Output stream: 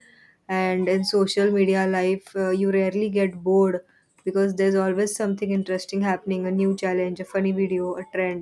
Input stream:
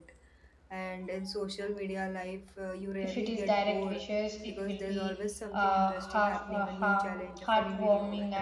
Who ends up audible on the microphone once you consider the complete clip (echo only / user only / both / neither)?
both